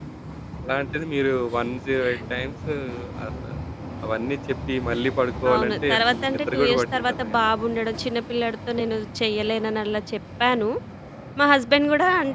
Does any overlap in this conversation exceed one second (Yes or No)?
Yes